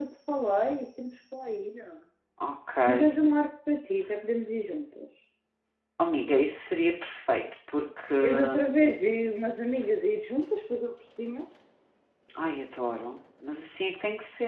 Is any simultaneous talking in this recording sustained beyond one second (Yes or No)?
No